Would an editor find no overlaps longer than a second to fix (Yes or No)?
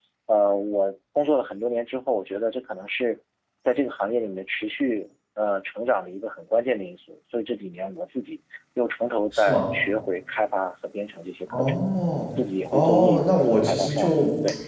No